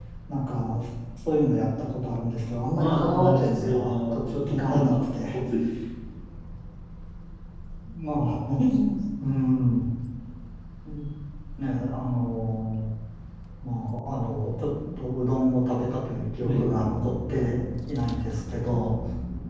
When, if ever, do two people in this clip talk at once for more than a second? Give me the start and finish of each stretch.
2.8-4.9

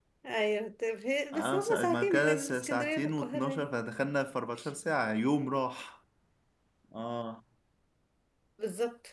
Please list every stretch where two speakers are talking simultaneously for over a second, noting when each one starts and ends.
1.3-3.7

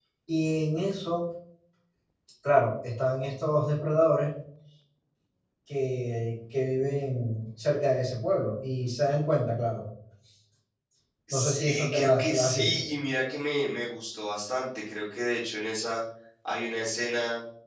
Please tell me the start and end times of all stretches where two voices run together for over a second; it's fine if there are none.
11.3-12.7

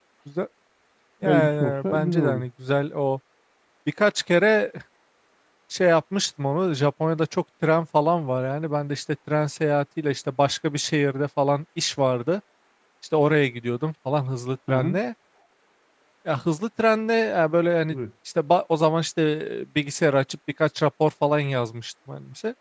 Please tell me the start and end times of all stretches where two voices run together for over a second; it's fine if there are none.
1.2-2.4

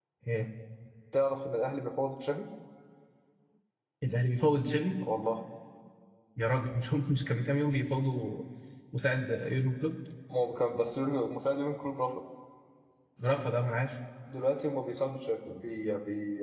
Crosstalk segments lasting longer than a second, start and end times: none

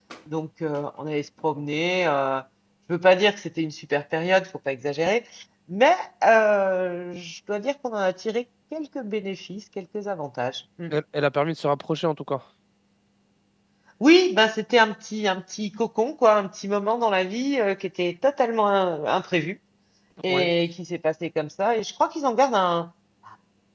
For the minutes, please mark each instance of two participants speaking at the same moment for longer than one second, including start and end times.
none

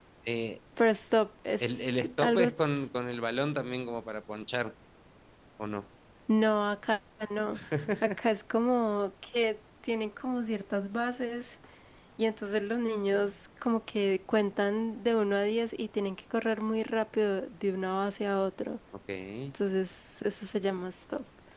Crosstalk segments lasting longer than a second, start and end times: 1.6-2.9

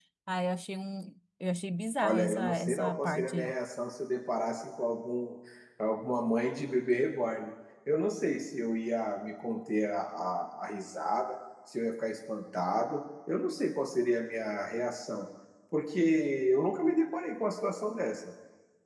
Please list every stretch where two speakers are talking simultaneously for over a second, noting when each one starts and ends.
2.0-3.5

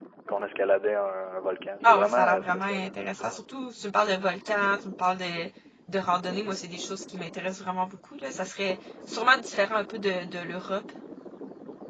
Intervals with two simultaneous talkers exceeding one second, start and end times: 1.8-3.4

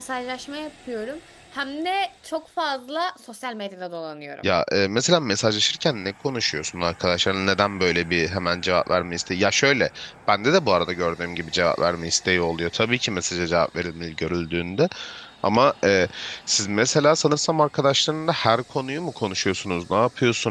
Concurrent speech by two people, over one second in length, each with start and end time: none

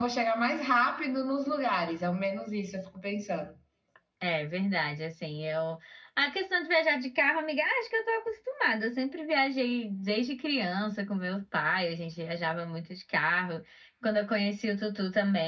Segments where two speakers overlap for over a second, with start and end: none

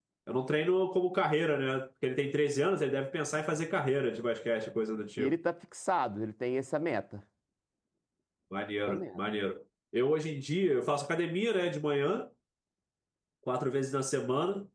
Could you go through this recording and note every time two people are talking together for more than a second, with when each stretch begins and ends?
none

